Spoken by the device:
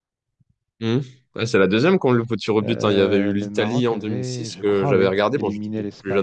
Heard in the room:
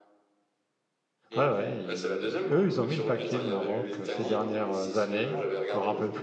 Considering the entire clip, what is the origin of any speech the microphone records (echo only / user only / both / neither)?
both